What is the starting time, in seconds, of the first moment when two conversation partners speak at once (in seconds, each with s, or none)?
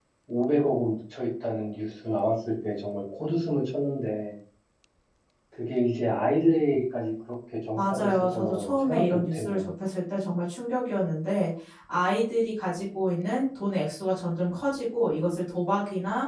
7.8 s